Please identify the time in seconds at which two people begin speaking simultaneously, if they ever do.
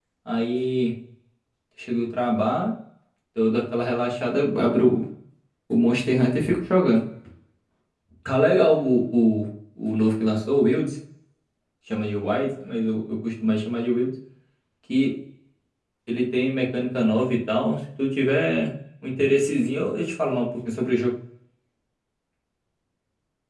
none

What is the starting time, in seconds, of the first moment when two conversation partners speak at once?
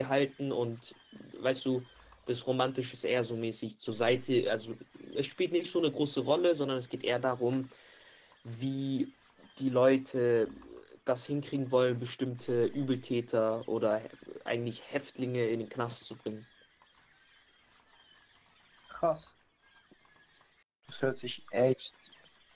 none

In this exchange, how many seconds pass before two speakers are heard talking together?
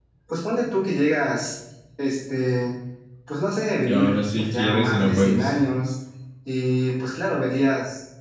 4 s

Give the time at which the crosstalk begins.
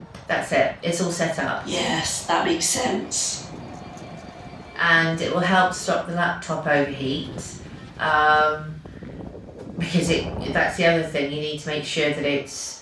none

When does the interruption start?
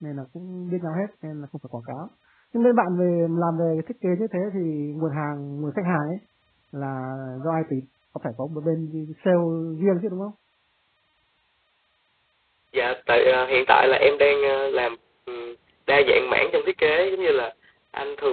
none

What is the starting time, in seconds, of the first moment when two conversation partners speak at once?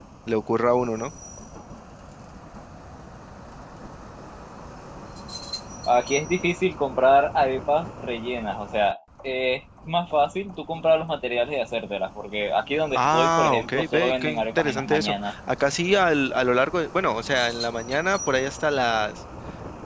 13 s

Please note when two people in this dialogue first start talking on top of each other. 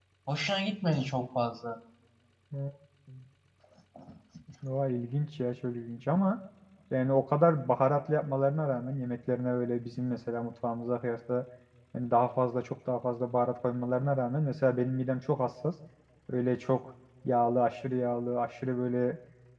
none

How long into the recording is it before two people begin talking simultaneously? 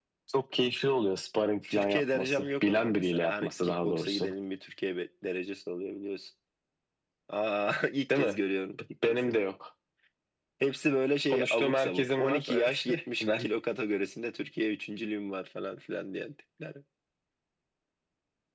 2 s

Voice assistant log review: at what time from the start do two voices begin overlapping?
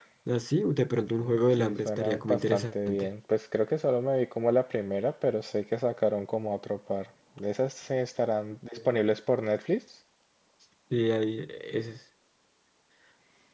1 s

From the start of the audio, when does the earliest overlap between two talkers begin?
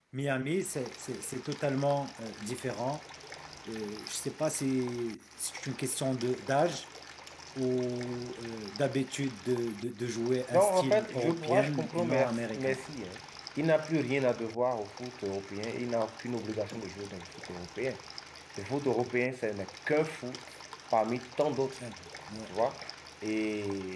11 s

